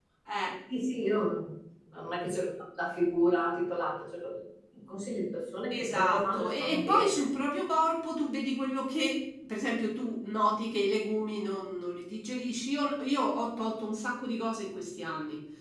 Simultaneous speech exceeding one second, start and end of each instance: 5.7-7.2

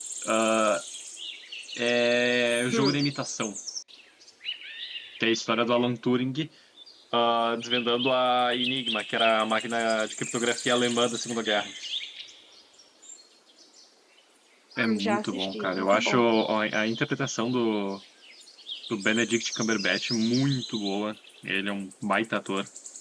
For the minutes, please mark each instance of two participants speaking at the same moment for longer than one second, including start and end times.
14.8-16.2

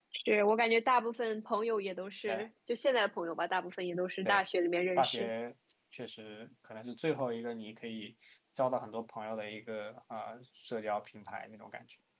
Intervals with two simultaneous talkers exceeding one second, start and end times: none

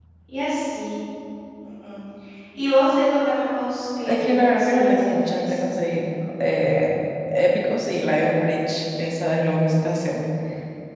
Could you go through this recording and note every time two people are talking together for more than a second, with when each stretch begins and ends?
4.1-5.6

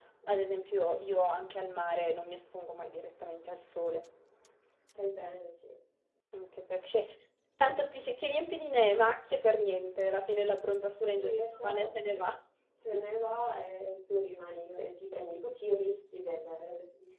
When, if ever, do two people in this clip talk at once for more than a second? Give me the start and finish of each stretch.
10.9-12.2

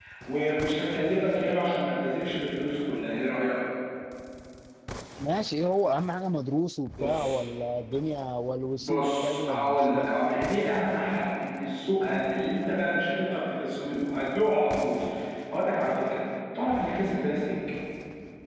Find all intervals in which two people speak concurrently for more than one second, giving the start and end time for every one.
8.8-10.1

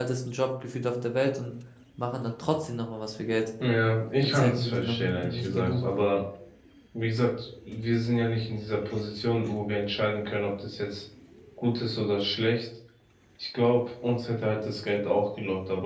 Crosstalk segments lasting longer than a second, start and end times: 4.2-5.8

